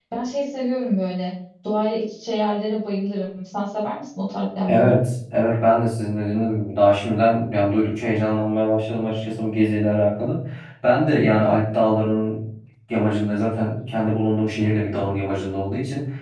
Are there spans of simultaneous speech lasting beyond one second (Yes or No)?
No